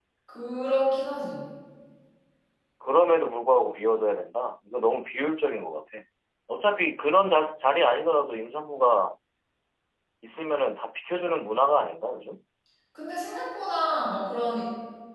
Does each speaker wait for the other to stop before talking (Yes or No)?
Yes